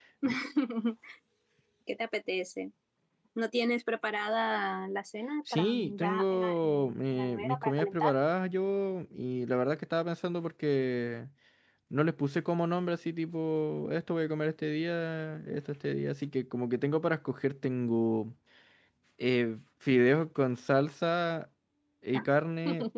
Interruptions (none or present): present